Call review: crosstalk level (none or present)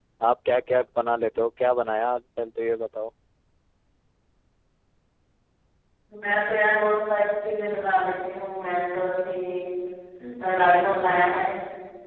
none